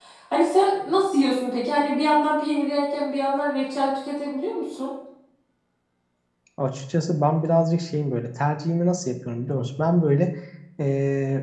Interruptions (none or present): none